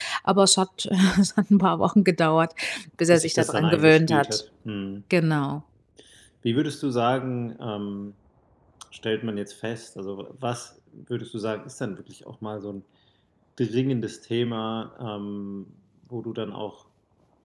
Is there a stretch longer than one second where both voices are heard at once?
Yes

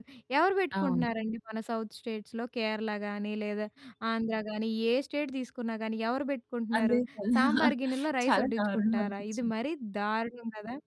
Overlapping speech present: Yes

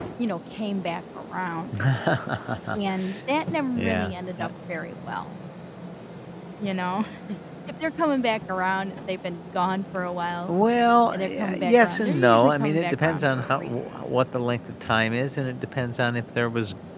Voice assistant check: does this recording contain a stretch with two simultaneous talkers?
Yes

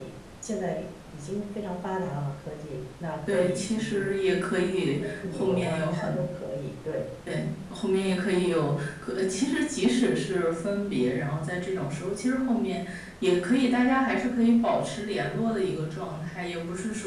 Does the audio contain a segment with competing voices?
Yes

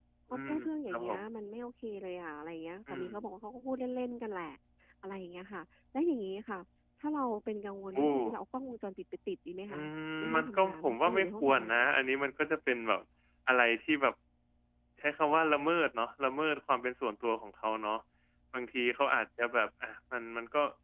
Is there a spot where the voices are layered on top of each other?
Yes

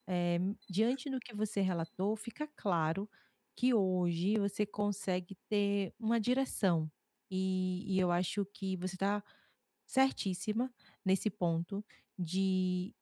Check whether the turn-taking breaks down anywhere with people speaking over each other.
No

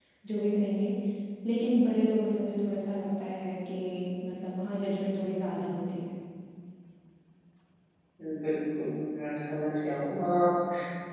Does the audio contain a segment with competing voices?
No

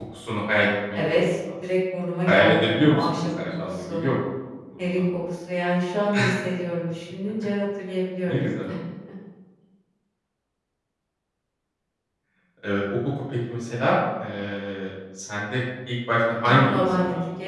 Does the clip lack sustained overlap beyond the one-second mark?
No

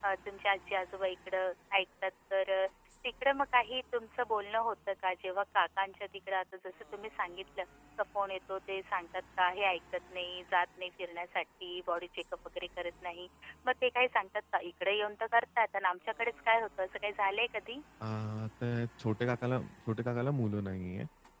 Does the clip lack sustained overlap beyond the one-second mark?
Yes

